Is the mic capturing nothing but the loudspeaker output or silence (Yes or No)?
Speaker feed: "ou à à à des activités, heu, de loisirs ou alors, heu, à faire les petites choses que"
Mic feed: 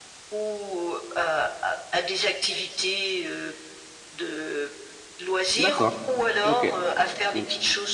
No